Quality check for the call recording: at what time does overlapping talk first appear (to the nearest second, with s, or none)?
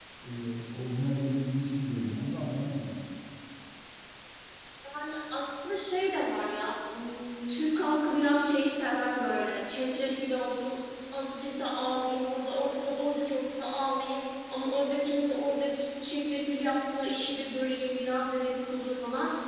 none